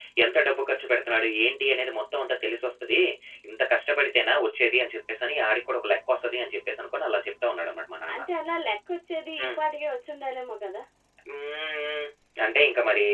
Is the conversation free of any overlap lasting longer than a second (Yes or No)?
Yes